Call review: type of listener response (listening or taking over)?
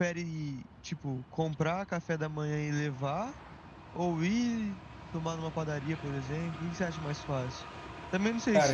listening